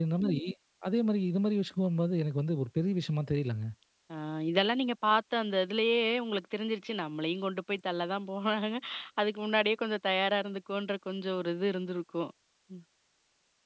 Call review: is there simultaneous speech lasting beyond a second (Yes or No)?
No